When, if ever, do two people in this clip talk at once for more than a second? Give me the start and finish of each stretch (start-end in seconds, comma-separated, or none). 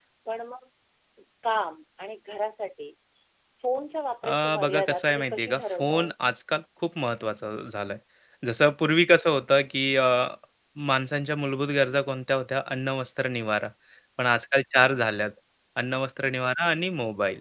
4.2-6.1